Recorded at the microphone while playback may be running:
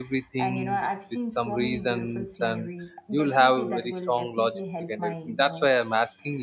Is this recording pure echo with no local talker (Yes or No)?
No